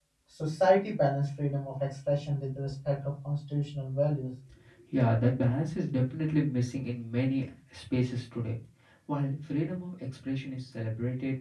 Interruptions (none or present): none